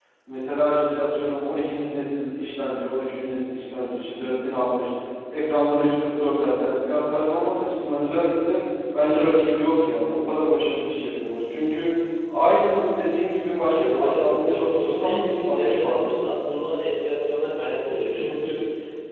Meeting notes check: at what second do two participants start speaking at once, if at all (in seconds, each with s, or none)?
13.6 s